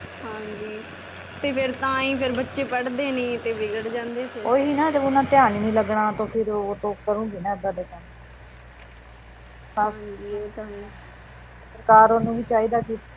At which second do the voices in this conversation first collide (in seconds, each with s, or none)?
none